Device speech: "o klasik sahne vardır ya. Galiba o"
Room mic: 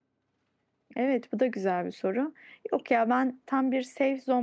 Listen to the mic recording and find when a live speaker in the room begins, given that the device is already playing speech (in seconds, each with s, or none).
0.9 s